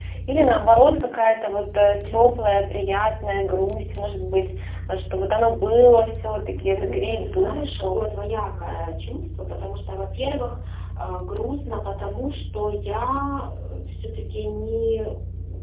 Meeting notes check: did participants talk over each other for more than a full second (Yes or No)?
Yes